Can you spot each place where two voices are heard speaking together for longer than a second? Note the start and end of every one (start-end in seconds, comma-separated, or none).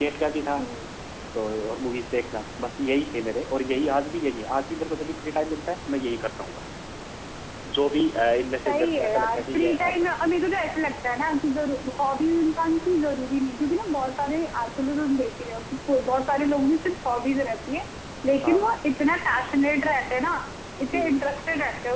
8.7-10.1